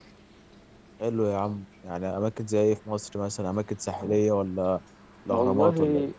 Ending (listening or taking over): taking over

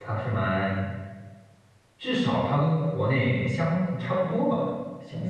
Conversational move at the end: taking over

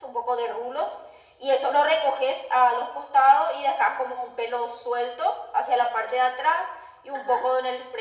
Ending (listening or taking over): listening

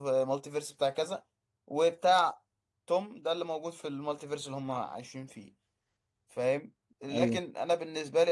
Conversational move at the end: listening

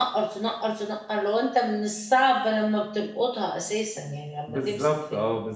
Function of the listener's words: taking over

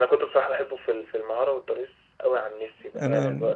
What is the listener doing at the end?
listening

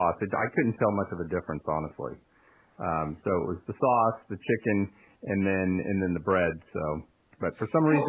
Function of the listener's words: listening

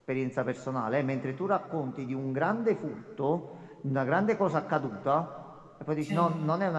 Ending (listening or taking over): listening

